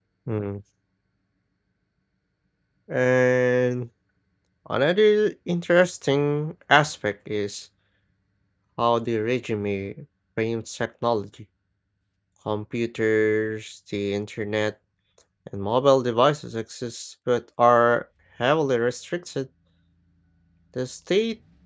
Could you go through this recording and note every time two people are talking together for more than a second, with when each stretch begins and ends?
none

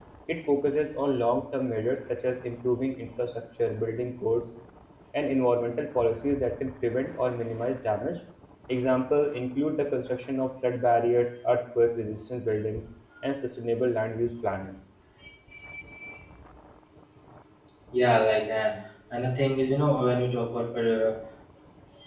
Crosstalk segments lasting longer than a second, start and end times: none

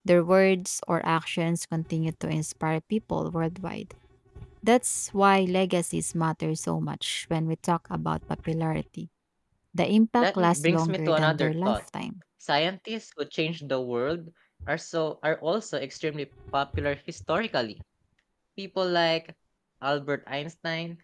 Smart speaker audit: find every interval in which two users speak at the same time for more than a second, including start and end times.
10.2-11.8

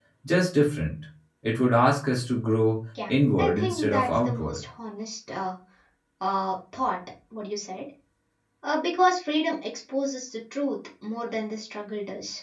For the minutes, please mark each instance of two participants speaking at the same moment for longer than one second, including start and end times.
3.1-4.6

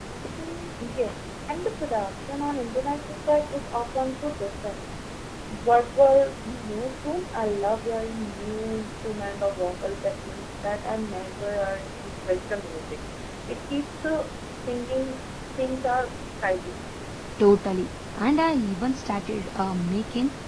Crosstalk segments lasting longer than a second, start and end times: none

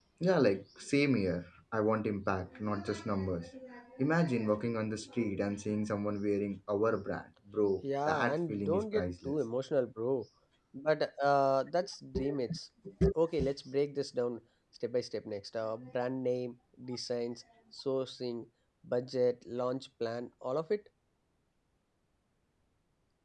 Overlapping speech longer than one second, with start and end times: 8.1-9.3

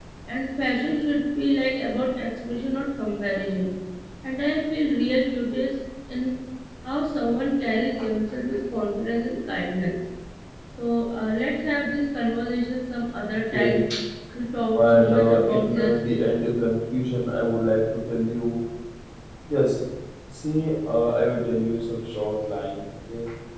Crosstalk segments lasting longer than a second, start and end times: 14.7-15.9

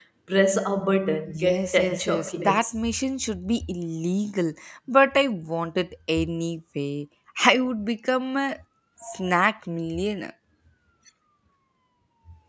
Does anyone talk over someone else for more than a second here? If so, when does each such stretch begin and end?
1.4-2.7

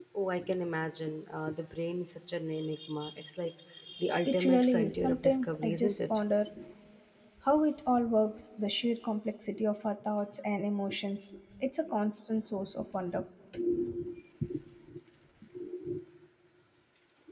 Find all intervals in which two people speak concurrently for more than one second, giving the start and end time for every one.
4.2-6.0

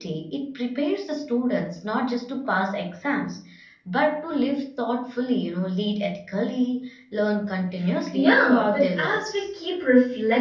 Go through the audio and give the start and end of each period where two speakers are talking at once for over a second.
8.1-9.4

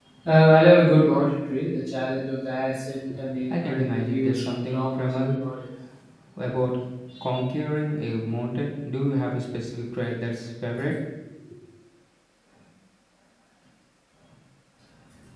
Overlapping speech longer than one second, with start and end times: 3.5-5.4

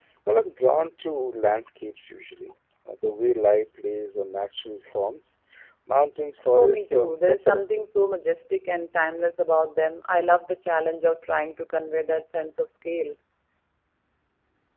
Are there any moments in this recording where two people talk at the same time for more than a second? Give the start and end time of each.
6.6-7.8

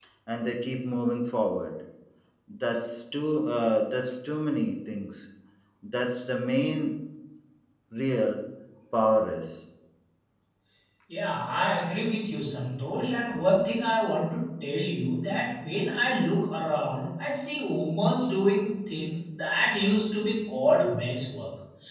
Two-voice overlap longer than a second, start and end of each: none

